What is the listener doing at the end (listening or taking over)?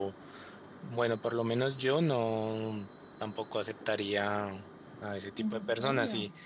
listening